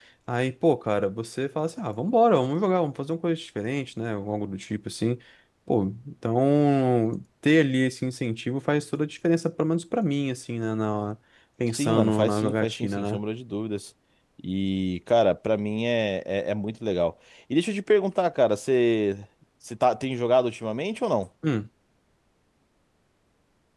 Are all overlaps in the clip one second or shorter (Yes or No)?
No